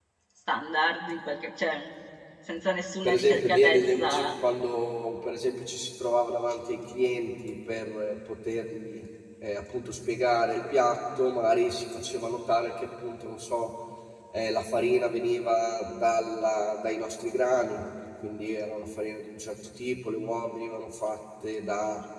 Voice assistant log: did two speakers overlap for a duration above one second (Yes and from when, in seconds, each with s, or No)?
Yes, from 3.0 s